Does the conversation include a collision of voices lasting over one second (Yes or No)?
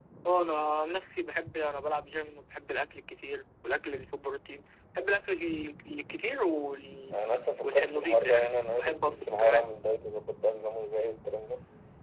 Yes